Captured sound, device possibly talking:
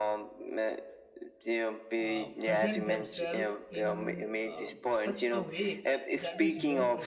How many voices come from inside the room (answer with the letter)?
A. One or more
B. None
A